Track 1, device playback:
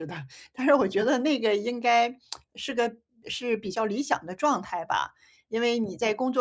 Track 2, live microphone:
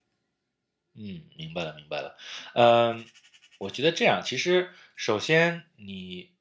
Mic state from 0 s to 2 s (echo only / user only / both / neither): user only